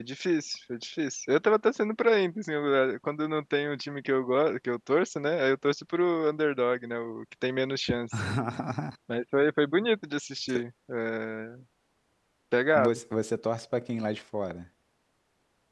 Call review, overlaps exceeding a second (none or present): none